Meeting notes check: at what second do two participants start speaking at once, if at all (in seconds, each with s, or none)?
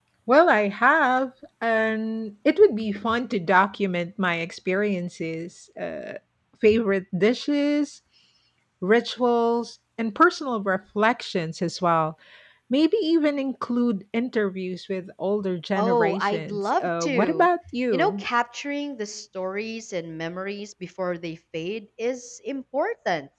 15.8 s